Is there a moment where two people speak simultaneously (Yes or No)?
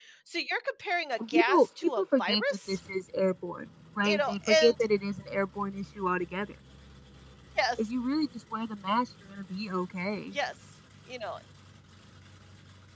Yes